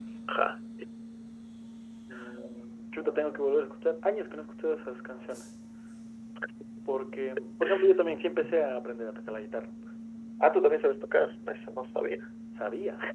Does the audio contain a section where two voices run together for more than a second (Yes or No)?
No